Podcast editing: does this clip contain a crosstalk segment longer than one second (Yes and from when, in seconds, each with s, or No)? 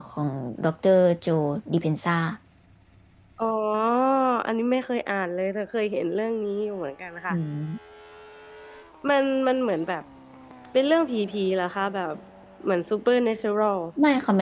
No